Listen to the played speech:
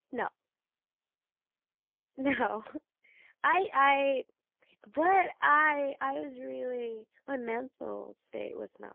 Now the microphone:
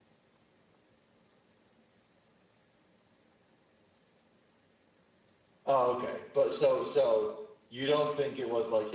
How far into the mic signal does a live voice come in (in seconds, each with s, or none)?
5.6 s